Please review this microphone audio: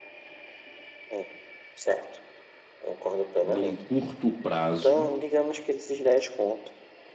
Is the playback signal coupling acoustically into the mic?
Yes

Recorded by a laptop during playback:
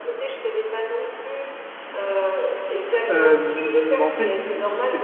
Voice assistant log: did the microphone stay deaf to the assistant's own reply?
No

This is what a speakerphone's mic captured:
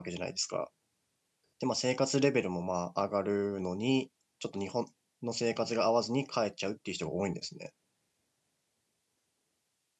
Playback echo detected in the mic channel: No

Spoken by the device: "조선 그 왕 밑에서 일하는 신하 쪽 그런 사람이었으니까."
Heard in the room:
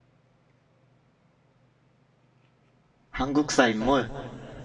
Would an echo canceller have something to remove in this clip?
No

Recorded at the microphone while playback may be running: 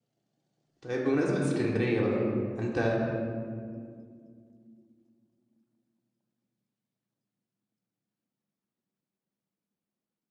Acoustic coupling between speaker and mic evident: No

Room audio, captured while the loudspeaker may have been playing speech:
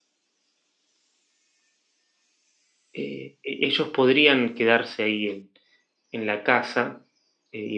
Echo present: No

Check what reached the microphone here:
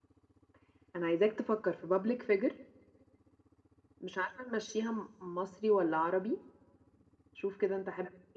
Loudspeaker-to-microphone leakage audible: No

